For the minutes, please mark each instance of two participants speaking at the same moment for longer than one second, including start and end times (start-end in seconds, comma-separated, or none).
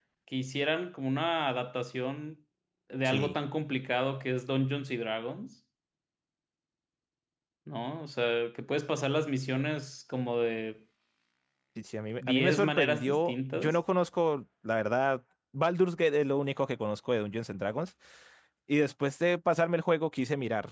12.2-13.8